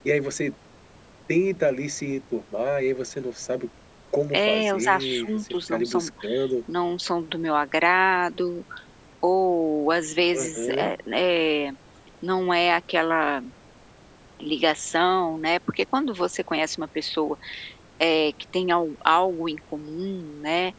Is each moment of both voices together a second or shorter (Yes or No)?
No